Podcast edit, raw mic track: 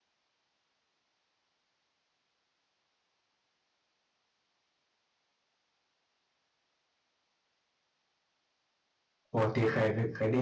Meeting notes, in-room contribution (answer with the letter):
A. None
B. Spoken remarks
B